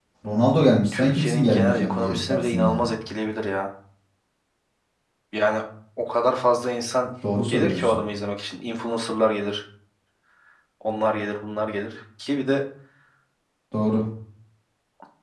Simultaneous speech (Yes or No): Yes